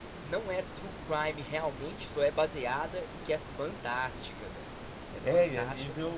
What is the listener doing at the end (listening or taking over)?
taking over